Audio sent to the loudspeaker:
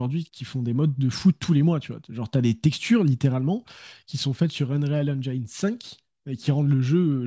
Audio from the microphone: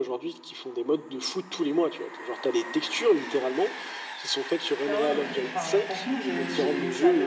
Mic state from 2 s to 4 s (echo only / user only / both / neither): echo only